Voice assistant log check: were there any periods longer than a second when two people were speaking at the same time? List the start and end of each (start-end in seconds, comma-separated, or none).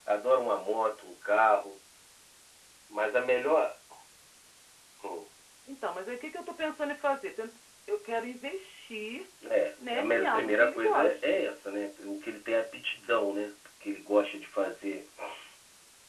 9.9-11.5